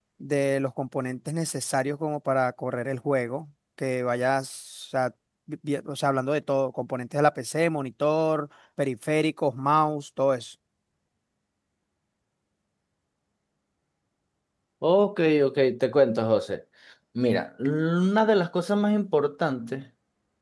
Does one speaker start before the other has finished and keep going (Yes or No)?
No